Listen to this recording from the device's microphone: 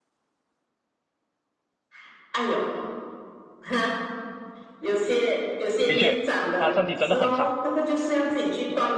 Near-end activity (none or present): present